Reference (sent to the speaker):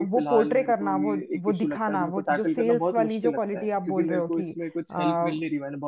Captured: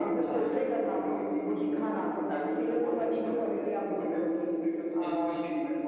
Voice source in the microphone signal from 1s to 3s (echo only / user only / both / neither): echo only